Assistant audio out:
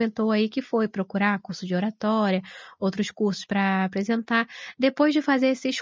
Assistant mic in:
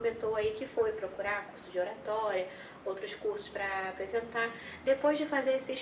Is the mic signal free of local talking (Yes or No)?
Yes